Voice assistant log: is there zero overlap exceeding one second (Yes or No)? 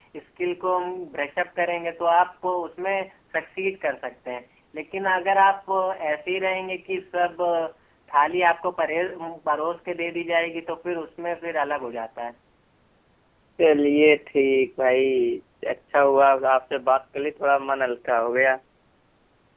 Yes